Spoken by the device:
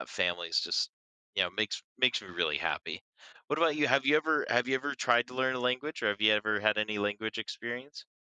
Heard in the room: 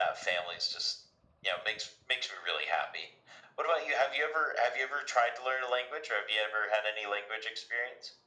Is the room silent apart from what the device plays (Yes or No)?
Yes